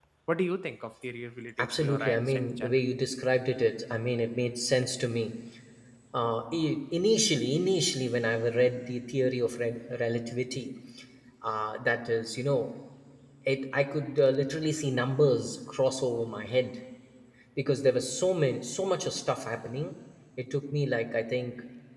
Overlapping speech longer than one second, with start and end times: 1.6-2.8

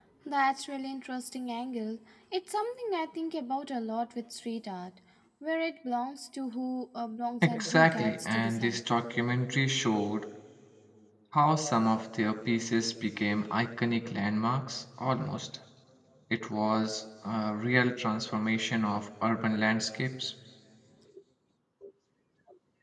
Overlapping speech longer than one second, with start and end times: 7.4-8.8

